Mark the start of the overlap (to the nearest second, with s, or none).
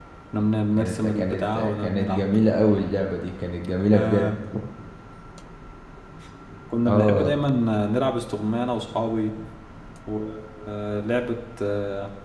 1 s